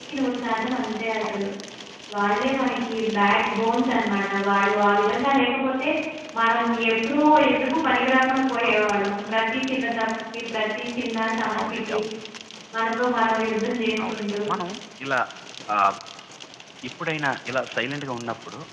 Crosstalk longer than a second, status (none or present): none